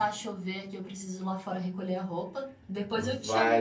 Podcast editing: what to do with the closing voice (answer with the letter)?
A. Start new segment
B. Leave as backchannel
A